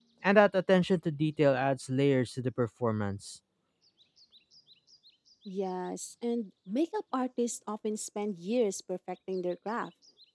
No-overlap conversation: Yes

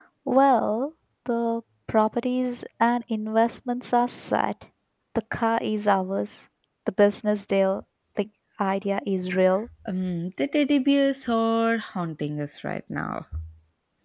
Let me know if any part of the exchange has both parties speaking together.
No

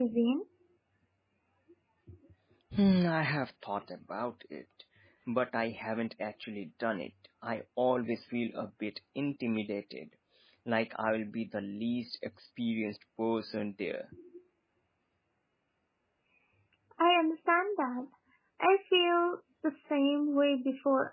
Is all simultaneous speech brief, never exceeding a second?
Yes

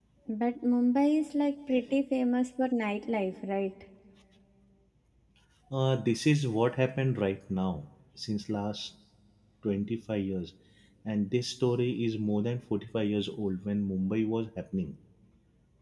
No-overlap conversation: Yes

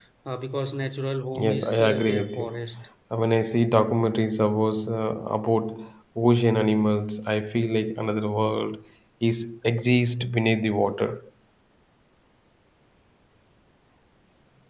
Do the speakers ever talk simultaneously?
Yes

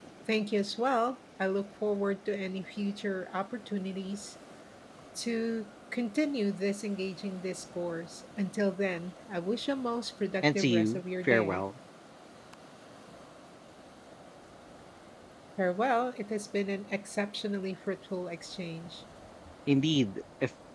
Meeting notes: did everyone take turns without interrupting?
No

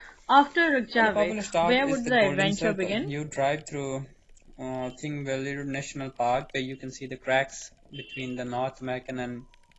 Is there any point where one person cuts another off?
Yes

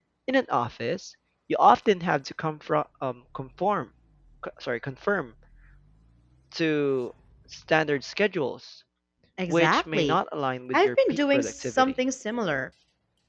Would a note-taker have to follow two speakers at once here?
Yes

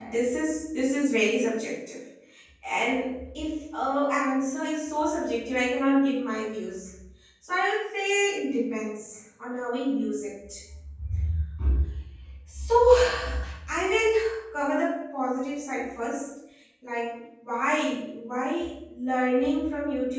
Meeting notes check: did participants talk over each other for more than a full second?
No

